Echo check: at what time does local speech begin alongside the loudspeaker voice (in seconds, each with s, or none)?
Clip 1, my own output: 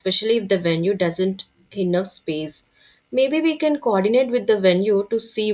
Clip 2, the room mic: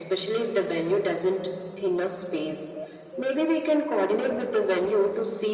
none